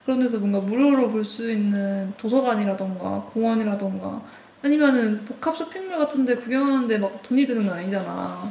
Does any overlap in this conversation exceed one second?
No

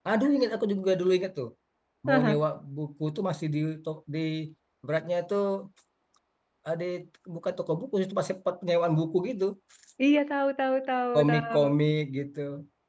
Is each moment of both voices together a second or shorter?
Yes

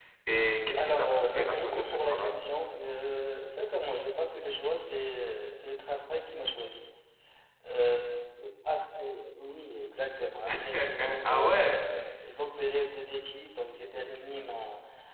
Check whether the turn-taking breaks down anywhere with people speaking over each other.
Yes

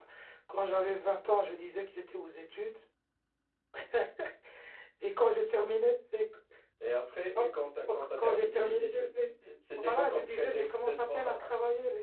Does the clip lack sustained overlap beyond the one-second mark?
No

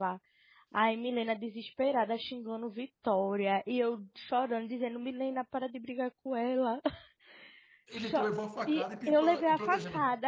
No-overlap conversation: No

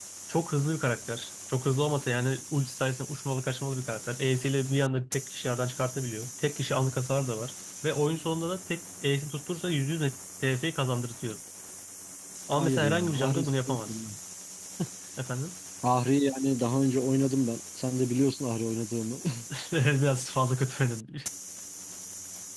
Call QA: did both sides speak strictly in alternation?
No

